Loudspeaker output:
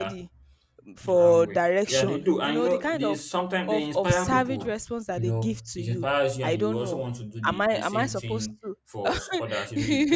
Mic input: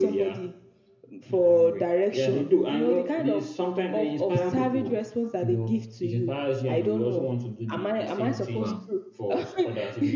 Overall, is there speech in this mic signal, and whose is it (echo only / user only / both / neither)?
both